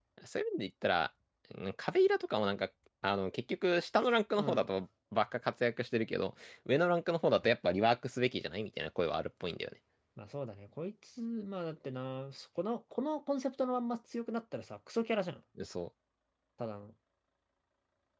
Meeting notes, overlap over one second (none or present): none